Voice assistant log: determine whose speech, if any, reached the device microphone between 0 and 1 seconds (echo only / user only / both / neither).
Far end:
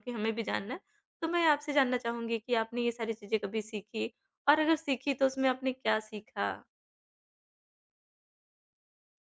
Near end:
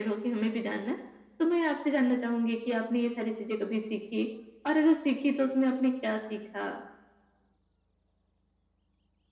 echo only